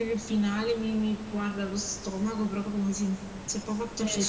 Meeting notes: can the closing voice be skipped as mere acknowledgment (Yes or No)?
No